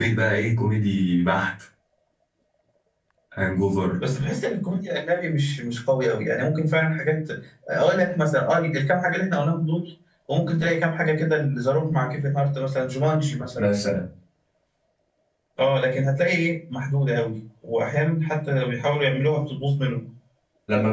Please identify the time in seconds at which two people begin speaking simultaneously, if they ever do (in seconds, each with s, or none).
none